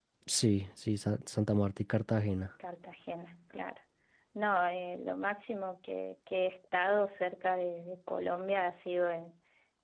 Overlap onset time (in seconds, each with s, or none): none